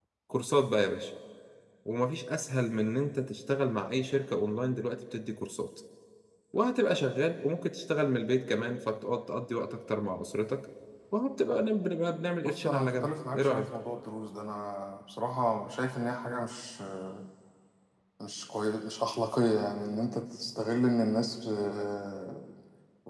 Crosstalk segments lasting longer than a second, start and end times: 12.4-13.6

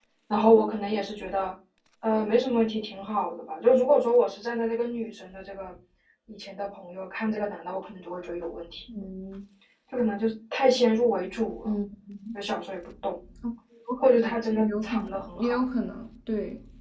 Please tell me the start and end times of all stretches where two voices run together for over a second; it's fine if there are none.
14.0-15.6

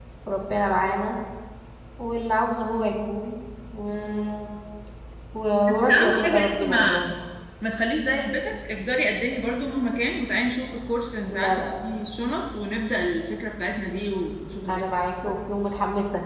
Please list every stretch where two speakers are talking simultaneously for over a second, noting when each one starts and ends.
5.7-7.0

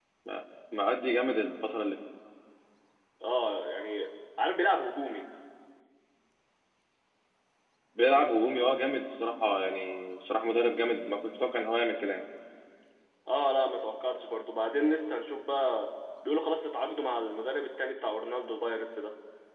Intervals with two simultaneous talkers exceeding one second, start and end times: none

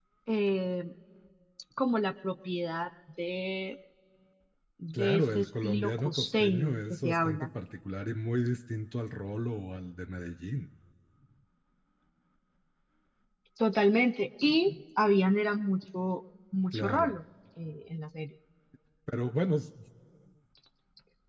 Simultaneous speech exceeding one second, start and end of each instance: 4.9-7.5

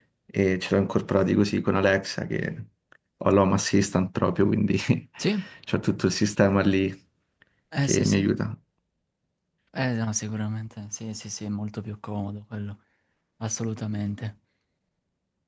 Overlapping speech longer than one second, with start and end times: none

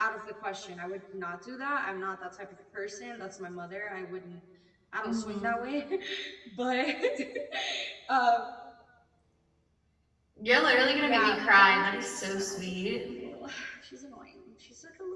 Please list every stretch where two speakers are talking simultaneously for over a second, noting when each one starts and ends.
10.9-12.7

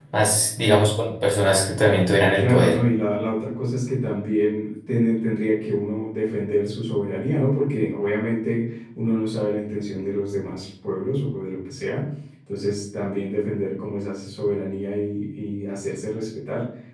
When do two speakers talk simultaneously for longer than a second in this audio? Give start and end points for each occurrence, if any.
none

